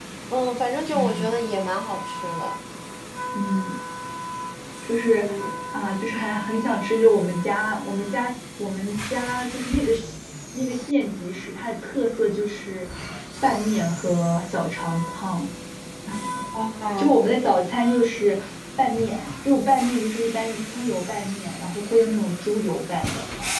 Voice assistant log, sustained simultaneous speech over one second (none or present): none